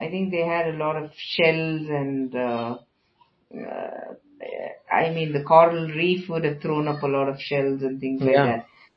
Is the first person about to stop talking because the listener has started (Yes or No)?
No